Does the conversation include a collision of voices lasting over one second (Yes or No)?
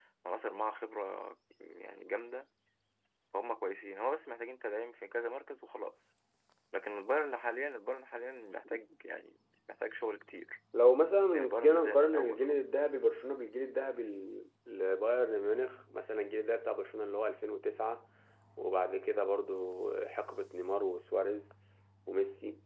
Yes